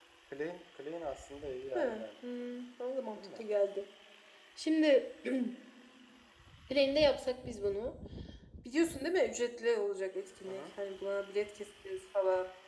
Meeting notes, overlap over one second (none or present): none